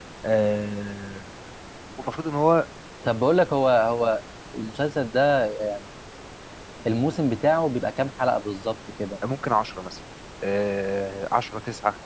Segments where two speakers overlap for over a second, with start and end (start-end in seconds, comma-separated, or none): none